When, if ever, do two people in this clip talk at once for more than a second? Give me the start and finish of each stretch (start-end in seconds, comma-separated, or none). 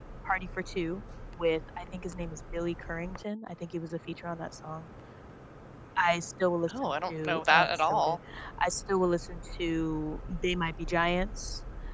6.8-8.2